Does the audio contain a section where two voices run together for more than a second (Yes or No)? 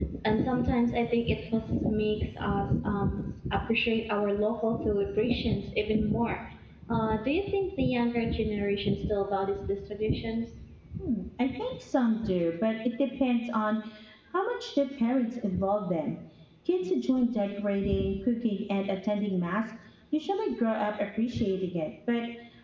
No